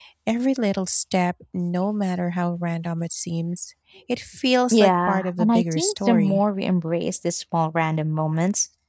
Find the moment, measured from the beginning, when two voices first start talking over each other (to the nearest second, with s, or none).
5 s